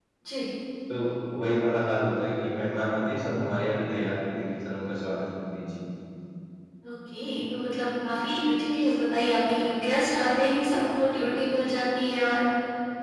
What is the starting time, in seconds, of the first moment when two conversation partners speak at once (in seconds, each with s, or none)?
none